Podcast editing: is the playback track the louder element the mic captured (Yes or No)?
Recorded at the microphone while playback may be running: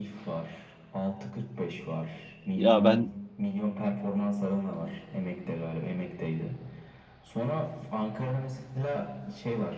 No